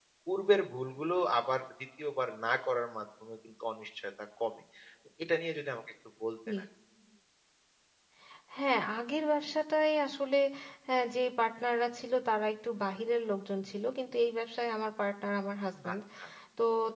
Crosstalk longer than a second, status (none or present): none